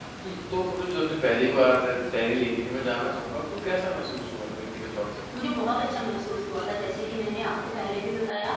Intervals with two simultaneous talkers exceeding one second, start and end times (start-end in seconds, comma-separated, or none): none